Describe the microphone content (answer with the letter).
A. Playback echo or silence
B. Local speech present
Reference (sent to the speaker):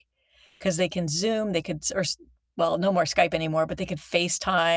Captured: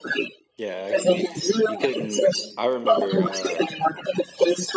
B